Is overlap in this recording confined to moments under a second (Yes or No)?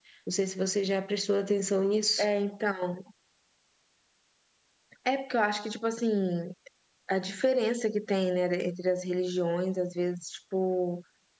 Yes